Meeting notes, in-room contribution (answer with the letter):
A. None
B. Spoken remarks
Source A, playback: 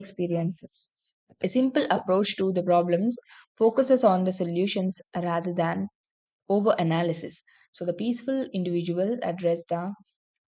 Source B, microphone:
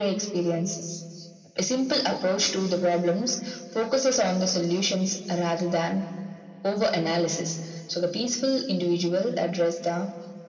A